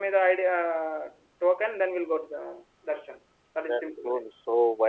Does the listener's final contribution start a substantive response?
Yes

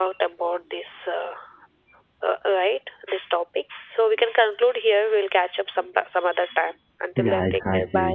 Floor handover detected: Yes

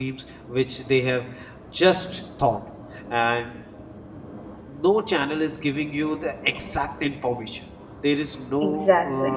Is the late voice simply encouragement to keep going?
Yes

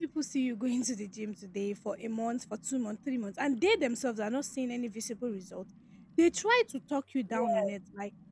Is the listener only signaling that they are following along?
Yes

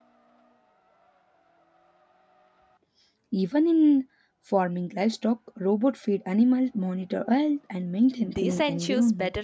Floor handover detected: Yes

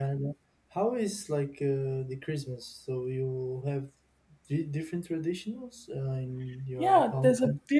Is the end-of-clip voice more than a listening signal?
Yes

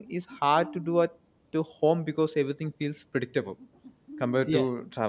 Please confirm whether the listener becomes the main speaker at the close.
Yes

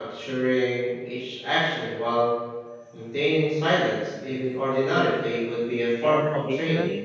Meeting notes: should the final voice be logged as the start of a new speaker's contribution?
Yes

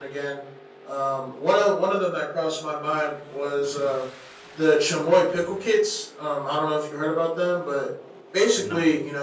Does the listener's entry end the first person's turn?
No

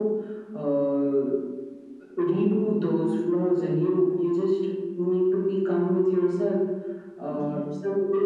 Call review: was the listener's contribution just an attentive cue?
Yes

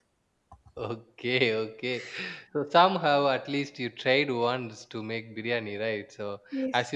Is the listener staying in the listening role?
Yes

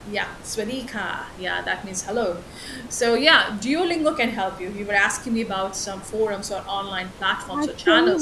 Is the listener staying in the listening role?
No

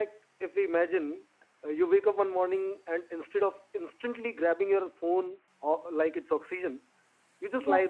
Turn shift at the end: No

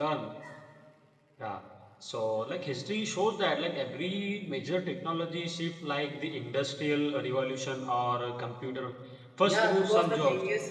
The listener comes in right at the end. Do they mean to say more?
Yes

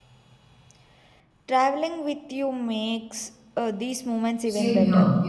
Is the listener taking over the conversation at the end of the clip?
Yes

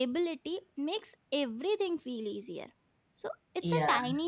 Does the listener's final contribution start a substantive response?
No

